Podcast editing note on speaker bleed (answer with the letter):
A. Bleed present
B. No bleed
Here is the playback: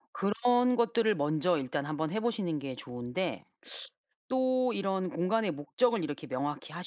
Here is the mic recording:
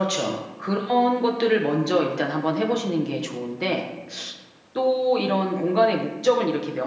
A